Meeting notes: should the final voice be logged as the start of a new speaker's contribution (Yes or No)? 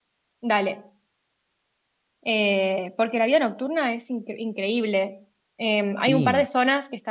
No